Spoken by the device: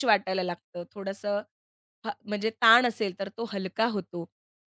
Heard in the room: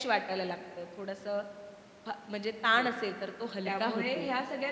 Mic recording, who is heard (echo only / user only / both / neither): both